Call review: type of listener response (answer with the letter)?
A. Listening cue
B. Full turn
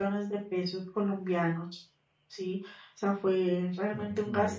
A